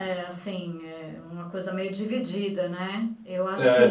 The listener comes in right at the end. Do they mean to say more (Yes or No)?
No